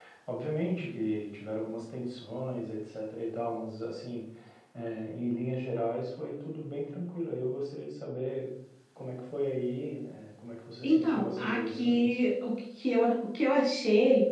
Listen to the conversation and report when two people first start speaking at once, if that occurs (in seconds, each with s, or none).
10.8 s